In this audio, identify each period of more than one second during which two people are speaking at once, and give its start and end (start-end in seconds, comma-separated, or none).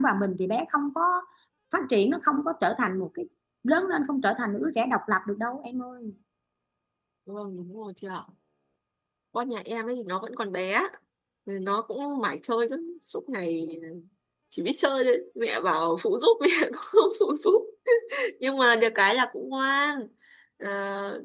none